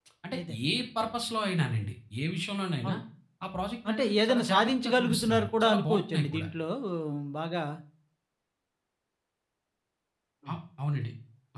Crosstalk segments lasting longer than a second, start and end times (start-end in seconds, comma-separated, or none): 3.9-6.5